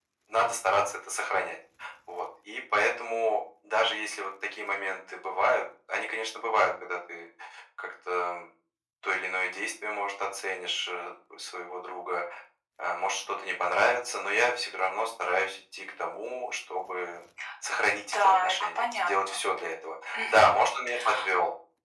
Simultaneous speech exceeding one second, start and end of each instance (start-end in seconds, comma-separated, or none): 18.1-19.4